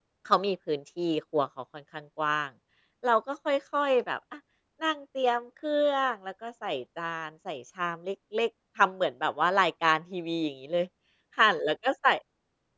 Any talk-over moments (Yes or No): No